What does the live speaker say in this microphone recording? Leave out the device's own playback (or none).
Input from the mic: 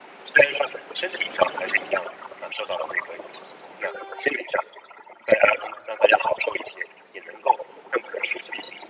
none